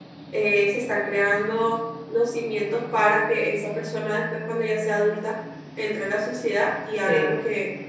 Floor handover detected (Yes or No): No